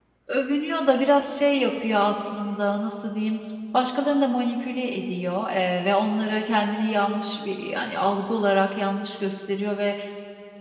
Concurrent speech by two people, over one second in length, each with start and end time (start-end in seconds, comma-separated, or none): none